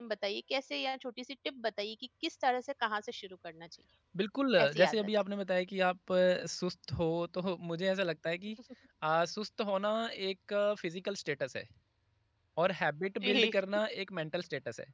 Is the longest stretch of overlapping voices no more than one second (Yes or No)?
Yes